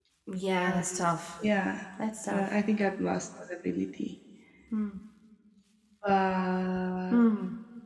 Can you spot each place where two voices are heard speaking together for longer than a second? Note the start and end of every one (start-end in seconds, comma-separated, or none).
none